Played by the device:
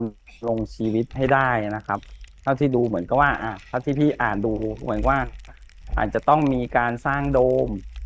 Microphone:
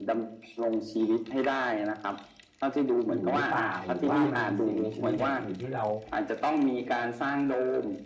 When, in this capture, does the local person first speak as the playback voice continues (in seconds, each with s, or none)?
3.1 s